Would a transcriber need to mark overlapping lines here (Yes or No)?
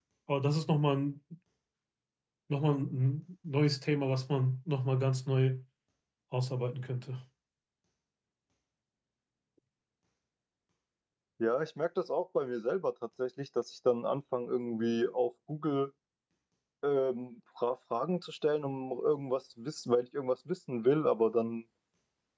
No